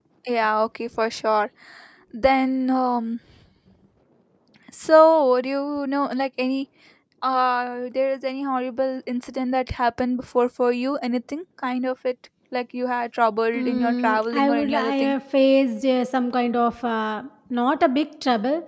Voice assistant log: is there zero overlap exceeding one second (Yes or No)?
No